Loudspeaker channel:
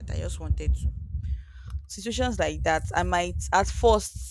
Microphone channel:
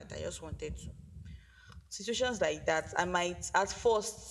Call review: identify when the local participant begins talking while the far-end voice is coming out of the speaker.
none

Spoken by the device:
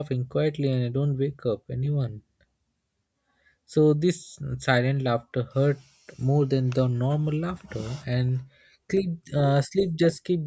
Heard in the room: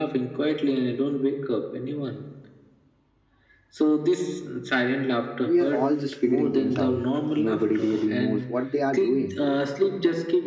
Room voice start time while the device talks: 5.4 s

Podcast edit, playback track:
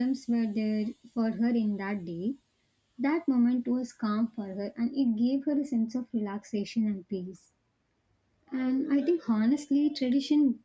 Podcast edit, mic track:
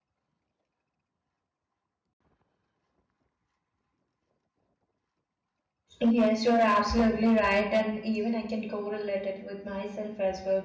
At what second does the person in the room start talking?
6.0 s

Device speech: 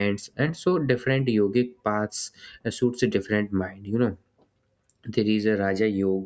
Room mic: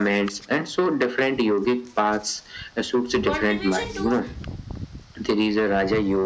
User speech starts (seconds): 3.2 s

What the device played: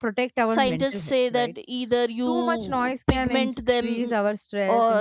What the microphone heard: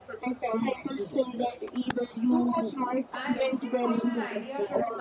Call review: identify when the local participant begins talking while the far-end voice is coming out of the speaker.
3.1 s

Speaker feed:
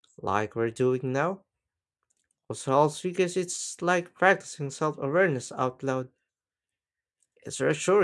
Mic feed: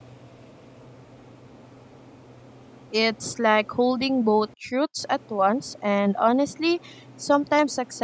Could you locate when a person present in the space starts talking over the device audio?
2.9 s

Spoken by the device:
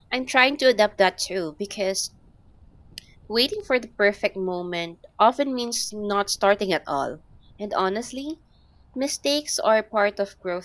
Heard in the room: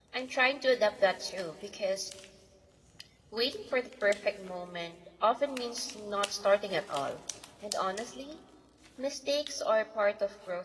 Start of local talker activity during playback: none

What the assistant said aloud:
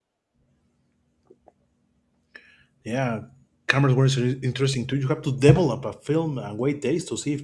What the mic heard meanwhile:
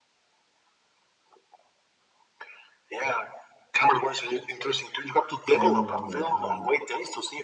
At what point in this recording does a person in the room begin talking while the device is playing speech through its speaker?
5.5 s

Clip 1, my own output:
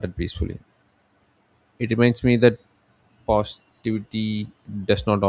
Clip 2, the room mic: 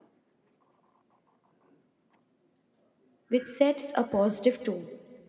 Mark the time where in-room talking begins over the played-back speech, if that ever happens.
3.3 s

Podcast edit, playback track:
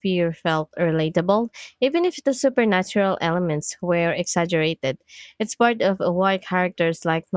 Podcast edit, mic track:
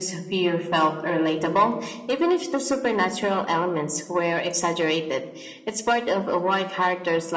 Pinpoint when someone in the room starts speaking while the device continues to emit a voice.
none

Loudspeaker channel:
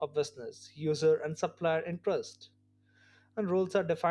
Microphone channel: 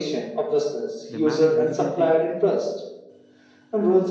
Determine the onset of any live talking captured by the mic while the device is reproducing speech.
1.1 s

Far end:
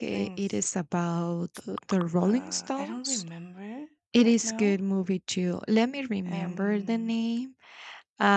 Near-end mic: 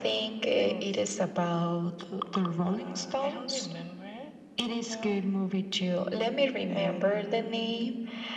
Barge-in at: none

